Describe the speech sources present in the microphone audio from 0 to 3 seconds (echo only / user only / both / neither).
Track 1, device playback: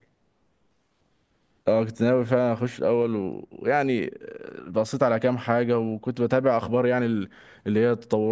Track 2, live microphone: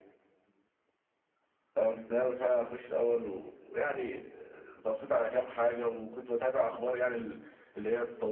echo only